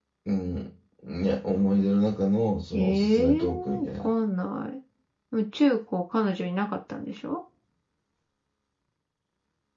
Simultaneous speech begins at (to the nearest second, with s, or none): 3 s